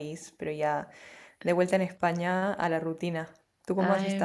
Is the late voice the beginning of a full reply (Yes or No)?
Yes